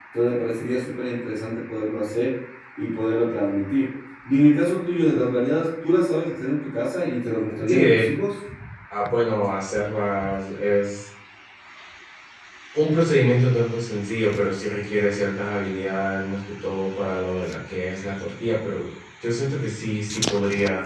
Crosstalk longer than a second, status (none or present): none